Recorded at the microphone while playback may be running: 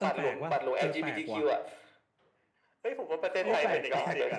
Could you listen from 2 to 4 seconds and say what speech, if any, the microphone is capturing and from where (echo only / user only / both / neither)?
both